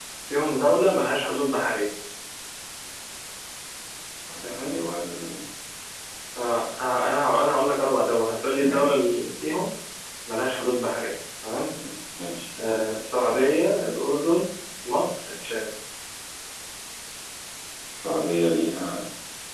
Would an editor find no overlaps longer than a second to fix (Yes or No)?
Yes